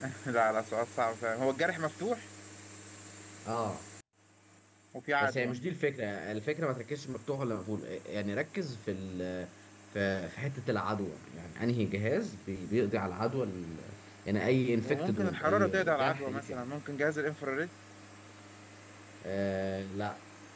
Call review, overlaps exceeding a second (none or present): present